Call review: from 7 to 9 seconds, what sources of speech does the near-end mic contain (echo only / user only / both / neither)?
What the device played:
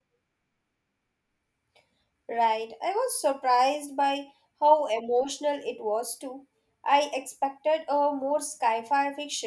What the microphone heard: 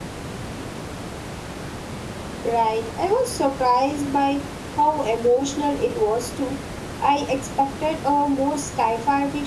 echo only